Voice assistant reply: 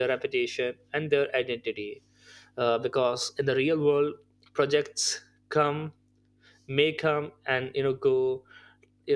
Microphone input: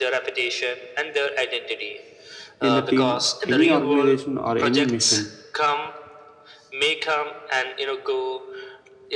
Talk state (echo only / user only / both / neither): both